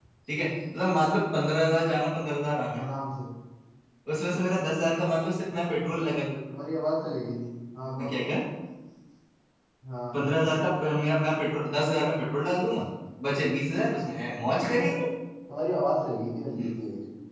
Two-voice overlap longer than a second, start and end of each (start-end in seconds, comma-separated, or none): none